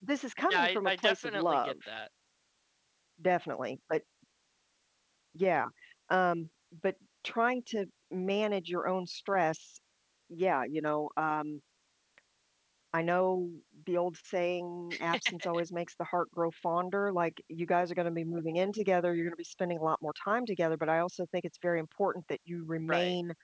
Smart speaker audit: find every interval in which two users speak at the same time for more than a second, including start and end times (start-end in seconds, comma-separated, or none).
0.5-1.7